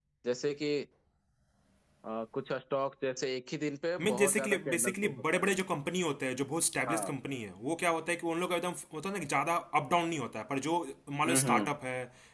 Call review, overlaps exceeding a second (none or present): present